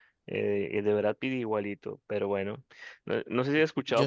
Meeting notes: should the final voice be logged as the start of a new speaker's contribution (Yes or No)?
No